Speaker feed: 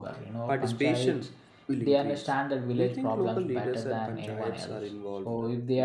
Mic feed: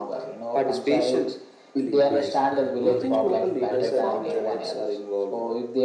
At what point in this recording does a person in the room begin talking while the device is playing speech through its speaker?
2 s

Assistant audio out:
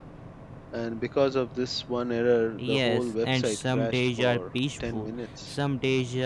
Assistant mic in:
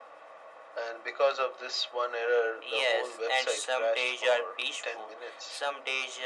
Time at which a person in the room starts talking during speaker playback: none

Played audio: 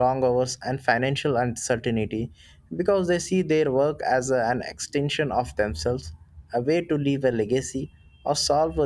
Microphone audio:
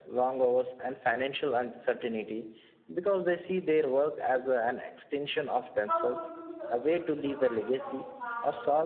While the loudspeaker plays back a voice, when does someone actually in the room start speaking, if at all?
6 s

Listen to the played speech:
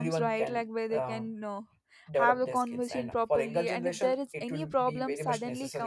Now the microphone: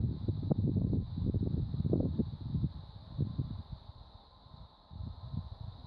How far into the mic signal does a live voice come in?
none

